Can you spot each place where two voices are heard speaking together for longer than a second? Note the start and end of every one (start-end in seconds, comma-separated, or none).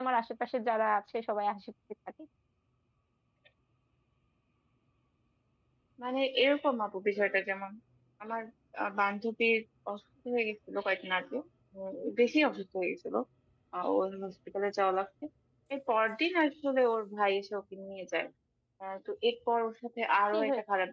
none